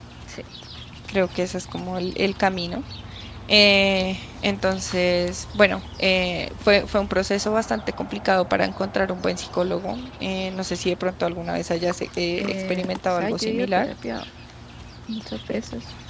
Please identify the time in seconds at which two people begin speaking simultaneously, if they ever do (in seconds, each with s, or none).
12.4 s